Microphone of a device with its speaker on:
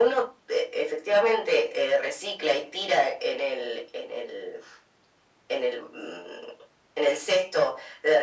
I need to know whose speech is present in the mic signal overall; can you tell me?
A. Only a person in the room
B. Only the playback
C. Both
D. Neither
B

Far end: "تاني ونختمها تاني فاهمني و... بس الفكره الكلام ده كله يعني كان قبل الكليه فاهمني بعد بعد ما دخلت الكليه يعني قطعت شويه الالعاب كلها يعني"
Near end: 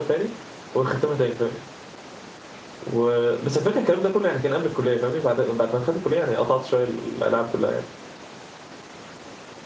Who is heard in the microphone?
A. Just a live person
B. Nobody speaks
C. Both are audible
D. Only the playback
D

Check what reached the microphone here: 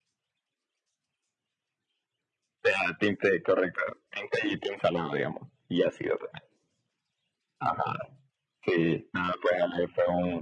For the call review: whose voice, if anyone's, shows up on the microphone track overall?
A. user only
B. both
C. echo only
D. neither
C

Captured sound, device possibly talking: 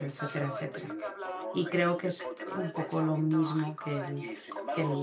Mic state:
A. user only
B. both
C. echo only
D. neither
B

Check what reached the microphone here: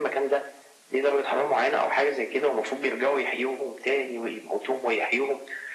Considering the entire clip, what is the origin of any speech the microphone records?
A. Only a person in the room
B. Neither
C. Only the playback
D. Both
C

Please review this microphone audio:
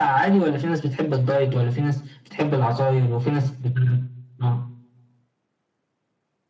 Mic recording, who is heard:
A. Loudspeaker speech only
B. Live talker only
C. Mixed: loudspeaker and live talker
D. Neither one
A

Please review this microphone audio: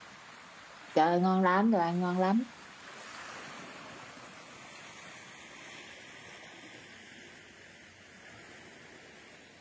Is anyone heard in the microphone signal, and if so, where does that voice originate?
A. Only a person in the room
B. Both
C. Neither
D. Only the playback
A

